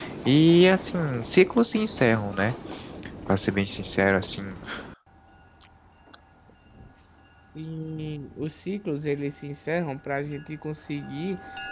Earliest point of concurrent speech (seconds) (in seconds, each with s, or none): none